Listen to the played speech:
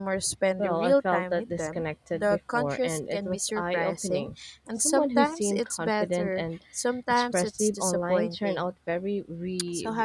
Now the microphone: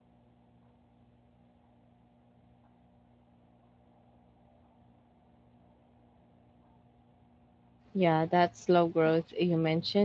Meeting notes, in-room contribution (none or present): present